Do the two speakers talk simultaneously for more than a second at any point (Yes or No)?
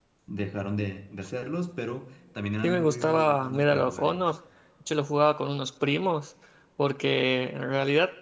Yes